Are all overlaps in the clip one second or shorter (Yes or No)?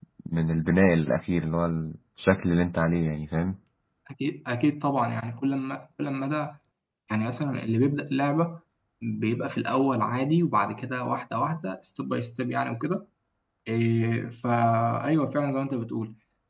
Yes